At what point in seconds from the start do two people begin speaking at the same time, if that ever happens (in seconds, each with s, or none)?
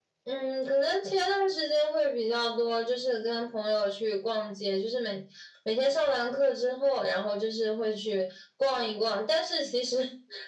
none